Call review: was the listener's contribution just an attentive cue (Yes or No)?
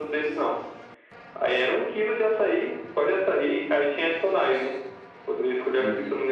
Yes